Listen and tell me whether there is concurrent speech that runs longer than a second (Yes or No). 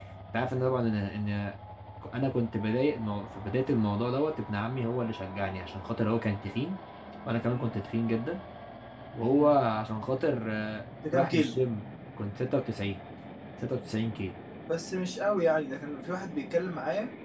No